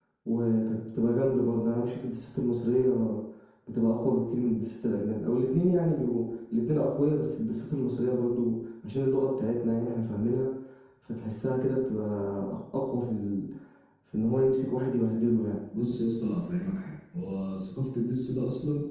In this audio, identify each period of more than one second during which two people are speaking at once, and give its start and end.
none

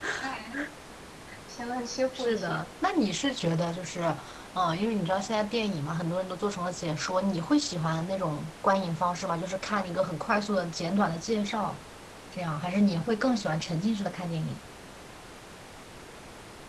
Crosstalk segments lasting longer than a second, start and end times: none

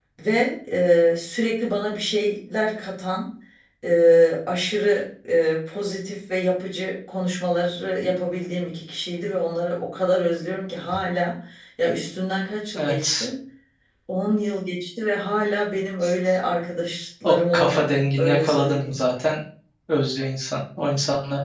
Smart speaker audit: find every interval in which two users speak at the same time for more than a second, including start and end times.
17.2-19.0

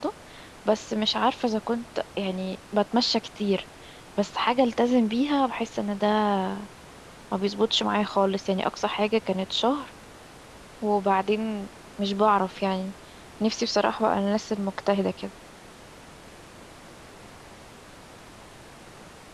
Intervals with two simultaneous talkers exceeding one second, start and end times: none

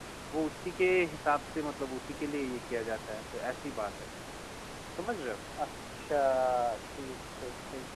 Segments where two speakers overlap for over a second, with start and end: none

